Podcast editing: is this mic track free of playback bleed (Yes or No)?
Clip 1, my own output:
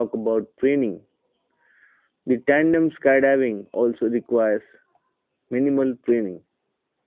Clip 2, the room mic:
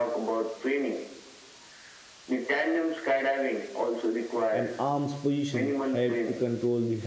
No